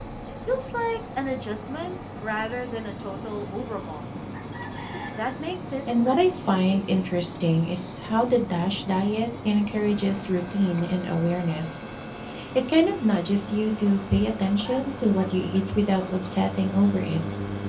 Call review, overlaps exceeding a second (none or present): present